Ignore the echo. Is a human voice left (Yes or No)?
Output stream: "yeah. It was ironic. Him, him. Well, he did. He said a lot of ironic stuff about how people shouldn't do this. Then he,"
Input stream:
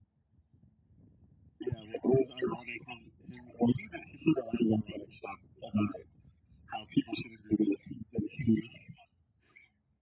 No